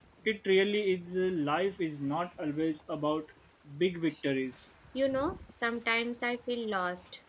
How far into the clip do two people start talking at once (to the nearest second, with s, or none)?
none